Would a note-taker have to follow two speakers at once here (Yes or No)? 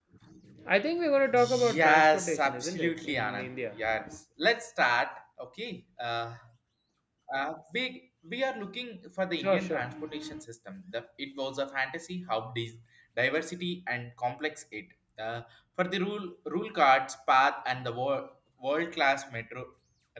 Yes